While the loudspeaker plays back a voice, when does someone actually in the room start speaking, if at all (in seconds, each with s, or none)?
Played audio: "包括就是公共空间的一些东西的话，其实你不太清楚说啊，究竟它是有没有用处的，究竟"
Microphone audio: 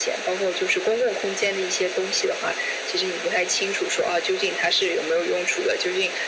none